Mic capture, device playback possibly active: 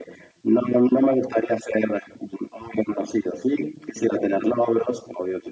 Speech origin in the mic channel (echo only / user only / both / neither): echo only